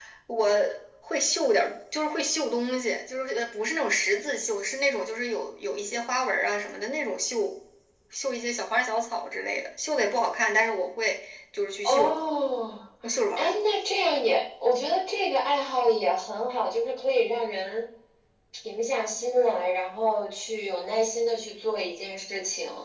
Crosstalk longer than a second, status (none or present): none